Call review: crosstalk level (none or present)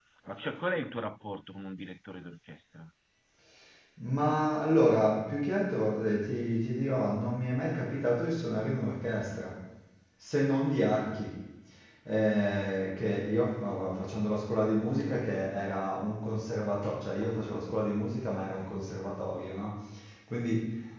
none